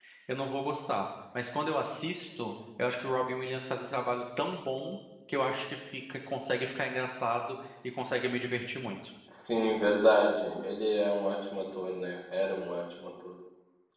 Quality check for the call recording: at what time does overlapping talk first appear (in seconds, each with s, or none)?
none